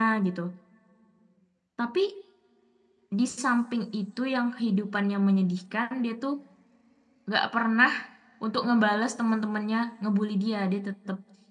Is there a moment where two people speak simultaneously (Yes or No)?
No